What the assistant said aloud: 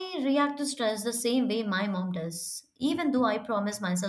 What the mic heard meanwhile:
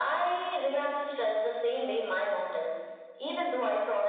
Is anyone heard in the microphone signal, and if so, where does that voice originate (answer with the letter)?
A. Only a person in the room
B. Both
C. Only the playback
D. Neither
C